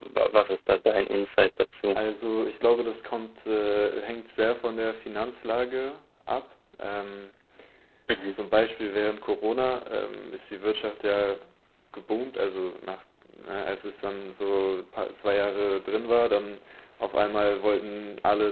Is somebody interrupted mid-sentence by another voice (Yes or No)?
No